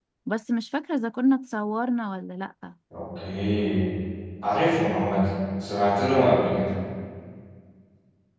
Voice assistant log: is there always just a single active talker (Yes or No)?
Yes